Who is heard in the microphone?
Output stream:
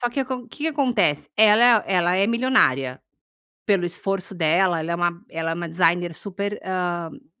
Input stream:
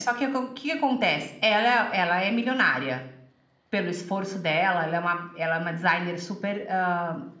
echo only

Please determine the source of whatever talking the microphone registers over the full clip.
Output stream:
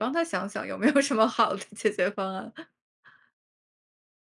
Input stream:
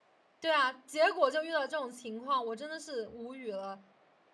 user only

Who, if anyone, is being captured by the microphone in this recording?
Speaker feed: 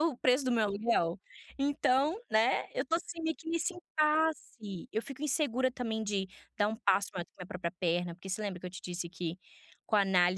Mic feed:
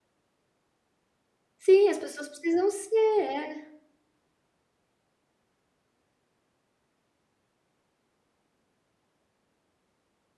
user only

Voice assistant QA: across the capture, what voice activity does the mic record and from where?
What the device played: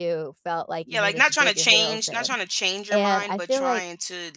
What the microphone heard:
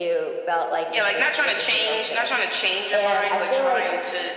echo only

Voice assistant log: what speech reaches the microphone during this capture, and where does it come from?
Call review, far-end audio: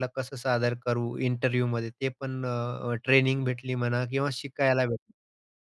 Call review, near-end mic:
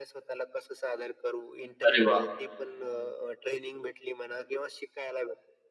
both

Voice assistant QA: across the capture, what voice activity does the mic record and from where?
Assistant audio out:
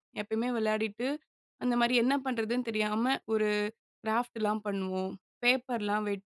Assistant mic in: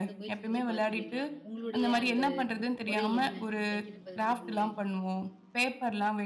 both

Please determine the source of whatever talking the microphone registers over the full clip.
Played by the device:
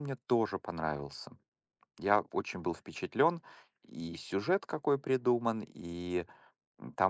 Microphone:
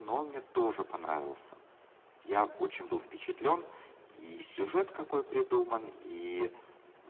echo only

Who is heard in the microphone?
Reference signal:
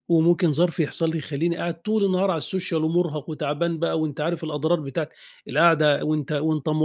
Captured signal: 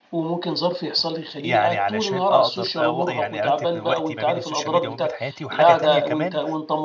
both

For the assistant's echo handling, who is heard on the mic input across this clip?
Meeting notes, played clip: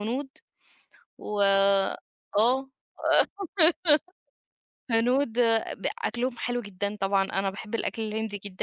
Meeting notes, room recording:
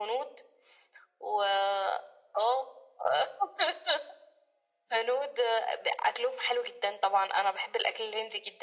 echo only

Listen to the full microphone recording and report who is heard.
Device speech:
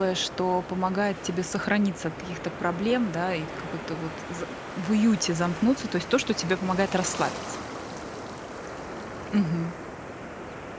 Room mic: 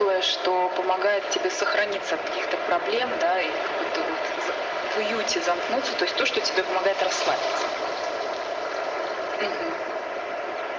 echo only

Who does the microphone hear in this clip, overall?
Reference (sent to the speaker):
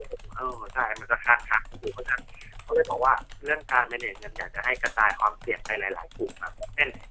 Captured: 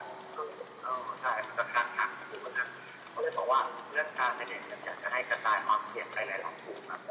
echo only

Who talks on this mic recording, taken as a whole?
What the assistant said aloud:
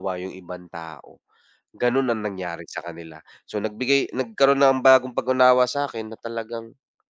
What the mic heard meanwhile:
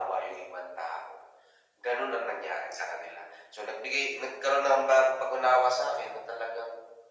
echo only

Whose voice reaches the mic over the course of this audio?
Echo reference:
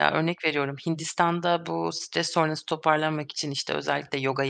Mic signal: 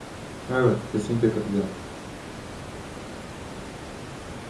user only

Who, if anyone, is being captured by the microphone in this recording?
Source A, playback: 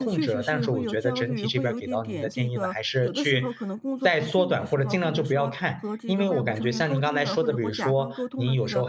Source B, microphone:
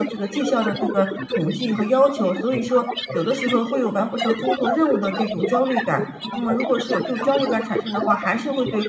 both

